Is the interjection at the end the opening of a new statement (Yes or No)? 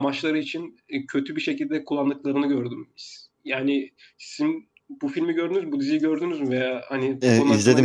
Yes